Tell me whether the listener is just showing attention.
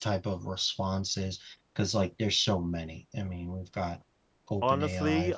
No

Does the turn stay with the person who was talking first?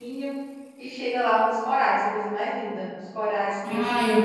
No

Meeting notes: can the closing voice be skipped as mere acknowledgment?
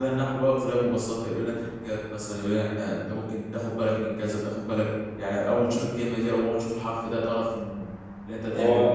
No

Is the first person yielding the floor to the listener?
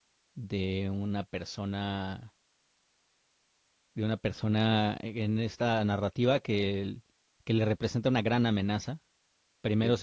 No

